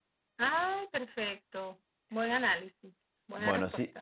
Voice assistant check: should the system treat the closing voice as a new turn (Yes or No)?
Yes